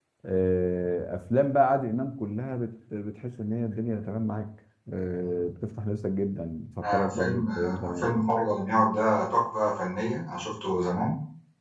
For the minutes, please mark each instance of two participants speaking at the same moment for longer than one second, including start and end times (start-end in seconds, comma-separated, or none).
6.8-8.1